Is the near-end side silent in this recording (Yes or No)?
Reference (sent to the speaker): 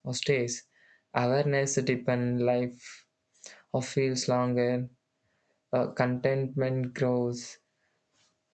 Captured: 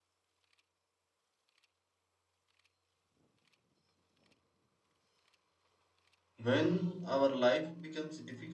No